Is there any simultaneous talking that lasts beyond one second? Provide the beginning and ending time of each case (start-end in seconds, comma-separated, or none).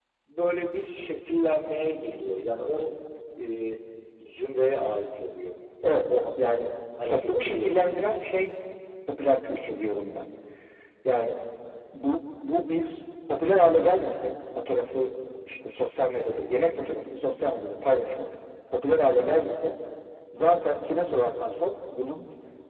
7.1-8.5